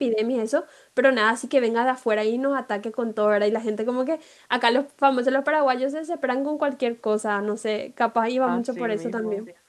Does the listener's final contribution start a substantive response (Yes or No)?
Yes